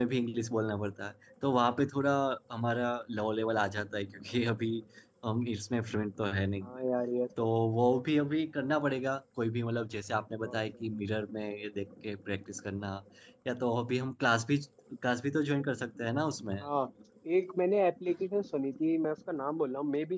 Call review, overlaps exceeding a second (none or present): none